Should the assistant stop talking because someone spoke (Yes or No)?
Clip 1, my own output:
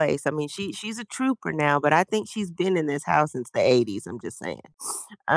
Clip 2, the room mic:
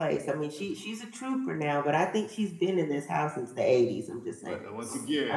Yes